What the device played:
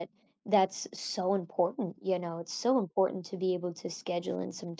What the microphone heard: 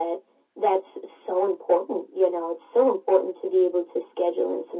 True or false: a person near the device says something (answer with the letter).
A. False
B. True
A